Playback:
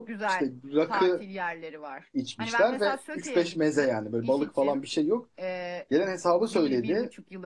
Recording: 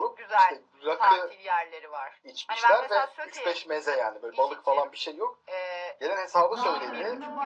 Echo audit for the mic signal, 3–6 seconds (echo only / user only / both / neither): echo only